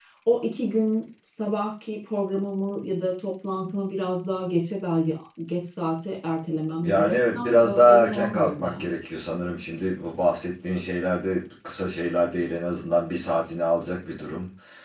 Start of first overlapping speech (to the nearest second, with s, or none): 7 s